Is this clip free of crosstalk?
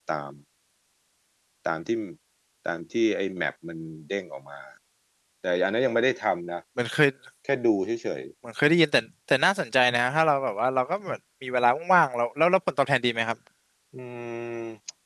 Yes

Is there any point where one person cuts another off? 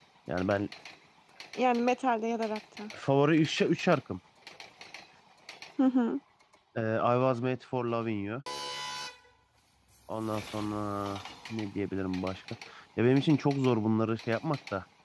No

